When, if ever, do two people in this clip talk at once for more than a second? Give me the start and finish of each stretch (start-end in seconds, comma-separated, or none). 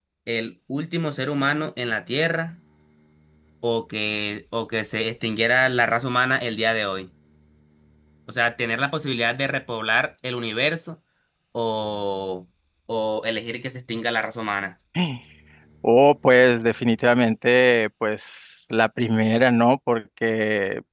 none